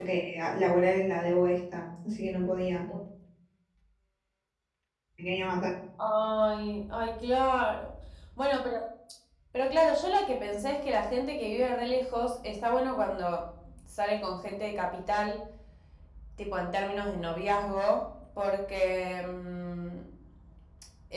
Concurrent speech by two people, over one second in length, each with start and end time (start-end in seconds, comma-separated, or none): none